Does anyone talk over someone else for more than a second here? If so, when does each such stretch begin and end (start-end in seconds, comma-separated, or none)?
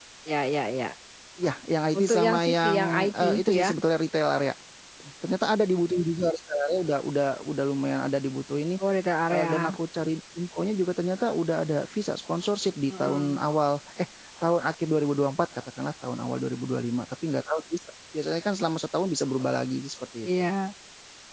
1.9-3.7